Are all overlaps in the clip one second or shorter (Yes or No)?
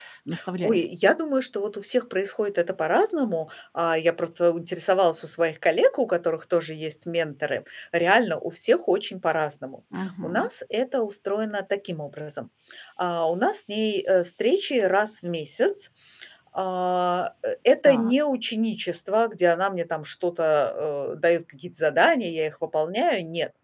Yes